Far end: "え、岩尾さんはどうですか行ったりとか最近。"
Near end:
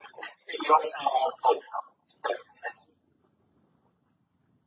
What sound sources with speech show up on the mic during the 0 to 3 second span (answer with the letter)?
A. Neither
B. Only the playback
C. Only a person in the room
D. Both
B